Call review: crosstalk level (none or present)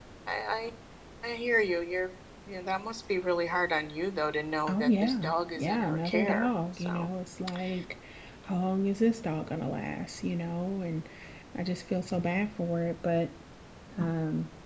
present